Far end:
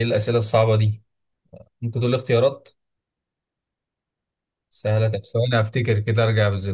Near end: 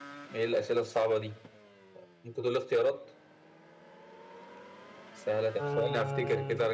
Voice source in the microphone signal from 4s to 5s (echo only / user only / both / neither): neither